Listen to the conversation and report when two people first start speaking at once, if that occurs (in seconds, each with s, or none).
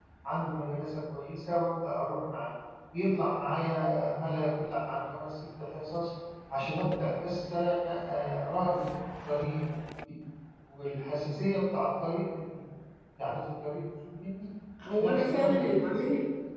14.8 s